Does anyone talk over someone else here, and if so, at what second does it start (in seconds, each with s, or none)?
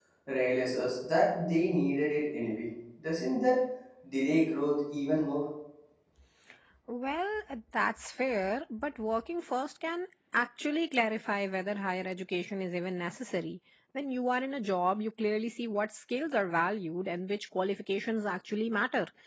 none